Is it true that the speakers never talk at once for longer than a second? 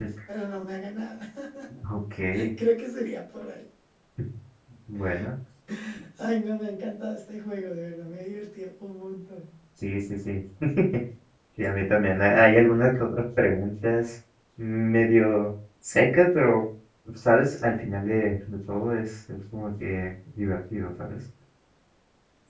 Yes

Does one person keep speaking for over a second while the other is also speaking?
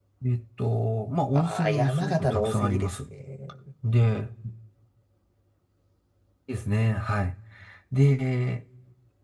Yes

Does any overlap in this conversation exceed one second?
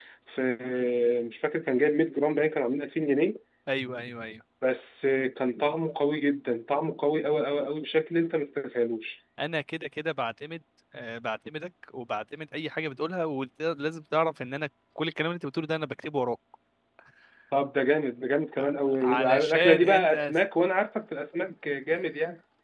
Yes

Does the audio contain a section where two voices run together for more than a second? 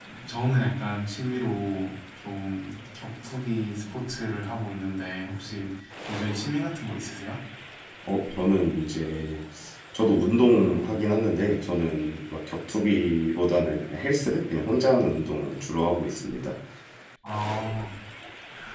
No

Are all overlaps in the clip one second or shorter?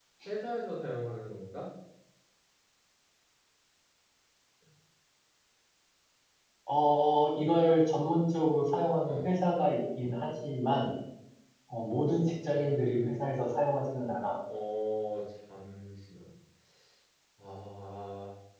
Yes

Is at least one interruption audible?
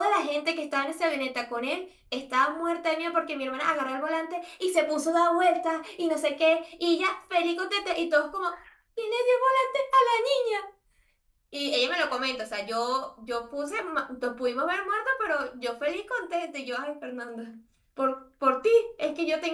No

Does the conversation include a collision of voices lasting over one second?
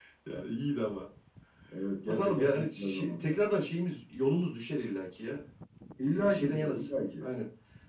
Yes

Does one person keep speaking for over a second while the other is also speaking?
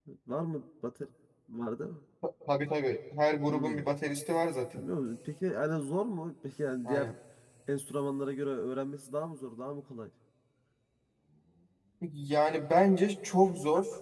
No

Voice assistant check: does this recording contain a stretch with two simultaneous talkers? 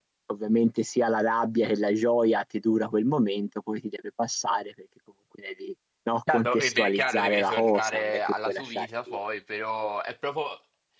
Yes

